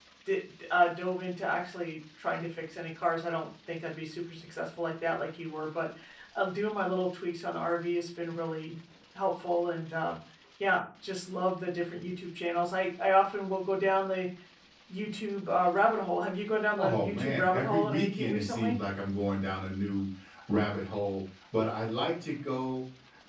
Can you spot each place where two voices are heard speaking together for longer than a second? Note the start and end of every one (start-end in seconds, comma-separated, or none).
16.8-18.8